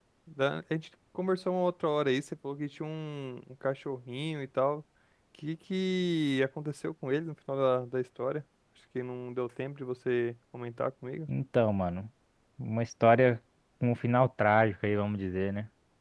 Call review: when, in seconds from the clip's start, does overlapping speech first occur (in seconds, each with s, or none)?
none